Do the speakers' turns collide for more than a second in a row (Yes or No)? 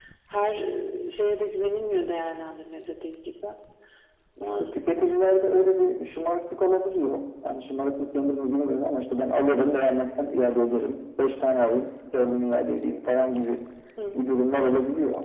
No